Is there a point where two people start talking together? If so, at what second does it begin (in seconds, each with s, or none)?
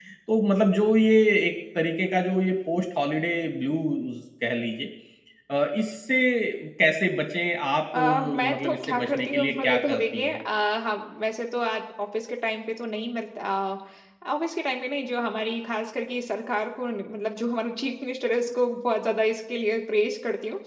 7.9 s